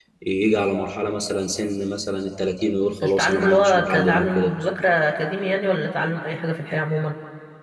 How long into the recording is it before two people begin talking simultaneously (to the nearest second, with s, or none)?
3 s